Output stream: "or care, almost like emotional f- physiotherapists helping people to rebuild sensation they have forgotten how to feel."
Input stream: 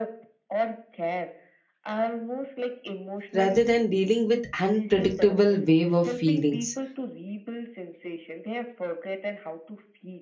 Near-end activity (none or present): present